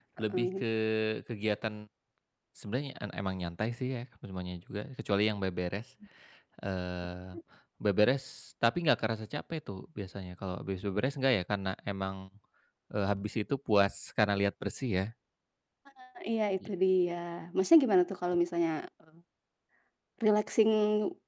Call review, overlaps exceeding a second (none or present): none